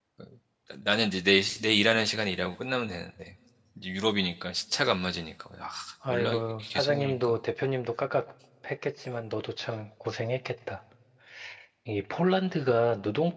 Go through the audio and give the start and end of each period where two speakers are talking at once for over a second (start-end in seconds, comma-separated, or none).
6.1-7.4